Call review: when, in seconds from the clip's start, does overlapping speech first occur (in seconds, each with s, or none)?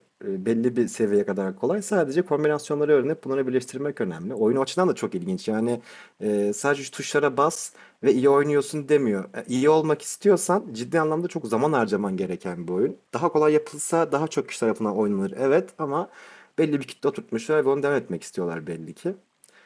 none